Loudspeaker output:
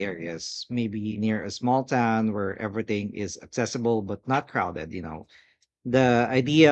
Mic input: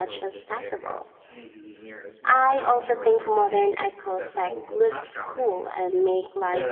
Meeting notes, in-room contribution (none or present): present